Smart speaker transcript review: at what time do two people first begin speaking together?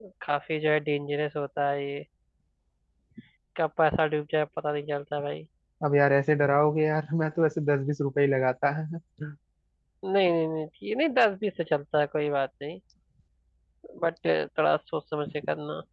none

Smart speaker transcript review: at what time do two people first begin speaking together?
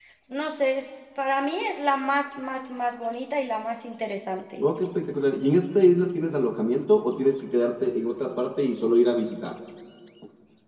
none

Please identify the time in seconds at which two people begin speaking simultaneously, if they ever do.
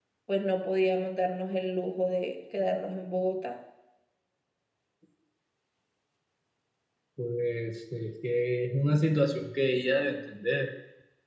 none

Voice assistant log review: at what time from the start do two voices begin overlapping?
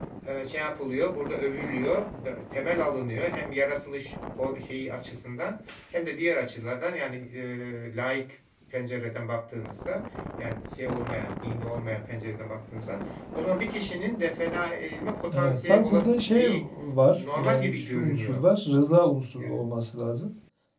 15 s

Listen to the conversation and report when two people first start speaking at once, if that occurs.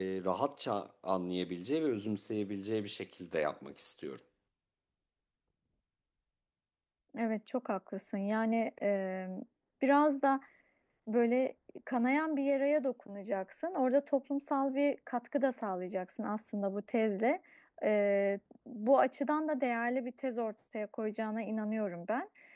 none

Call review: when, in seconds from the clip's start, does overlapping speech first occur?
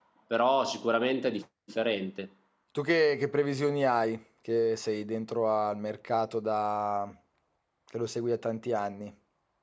none

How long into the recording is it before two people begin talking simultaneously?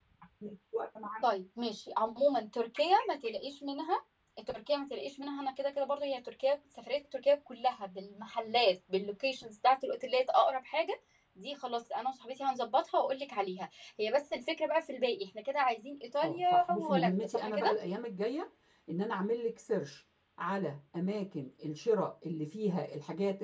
16 s

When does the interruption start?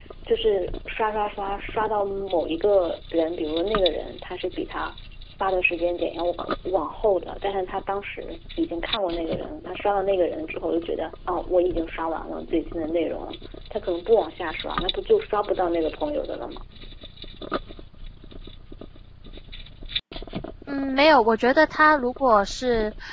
none

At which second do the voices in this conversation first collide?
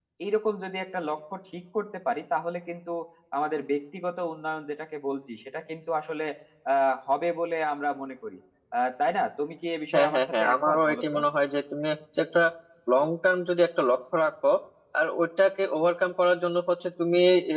10 s

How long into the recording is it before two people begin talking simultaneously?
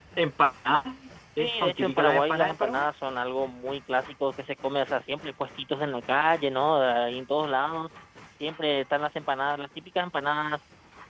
1 s

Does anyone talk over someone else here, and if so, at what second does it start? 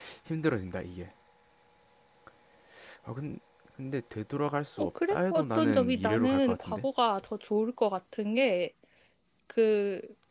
5 s

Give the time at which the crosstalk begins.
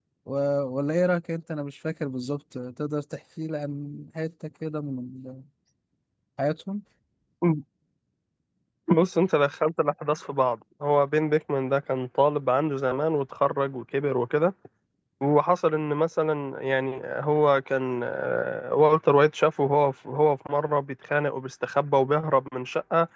none

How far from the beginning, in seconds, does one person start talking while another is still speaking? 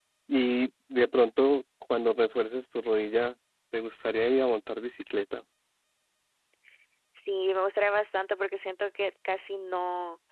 none

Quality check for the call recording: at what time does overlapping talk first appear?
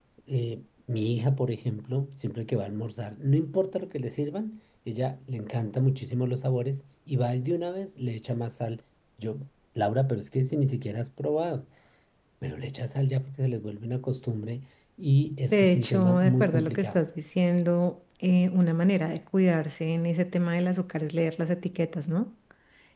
15 s

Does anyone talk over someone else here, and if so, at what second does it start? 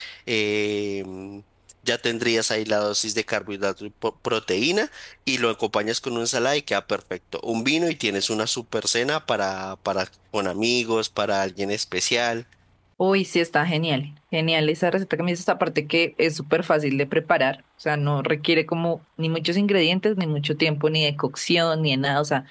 none

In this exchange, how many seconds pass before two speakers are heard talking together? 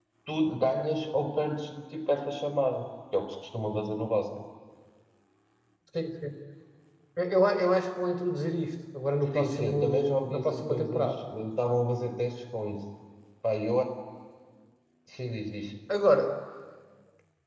9 s

